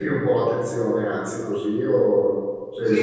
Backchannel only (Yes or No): No